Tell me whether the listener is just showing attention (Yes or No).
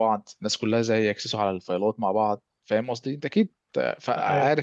No